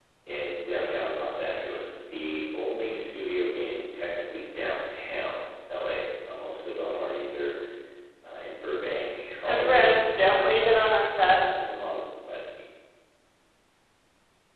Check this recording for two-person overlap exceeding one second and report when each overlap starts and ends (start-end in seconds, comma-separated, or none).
9.4-10.7